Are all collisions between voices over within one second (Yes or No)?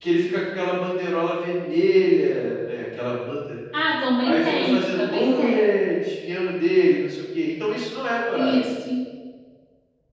No